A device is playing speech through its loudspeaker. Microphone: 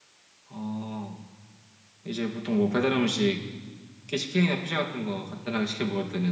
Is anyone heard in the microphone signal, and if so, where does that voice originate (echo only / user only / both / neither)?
user only